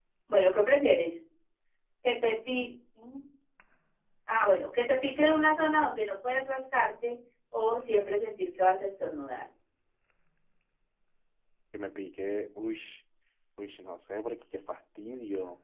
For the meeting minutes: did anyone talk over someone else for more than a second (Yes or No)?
No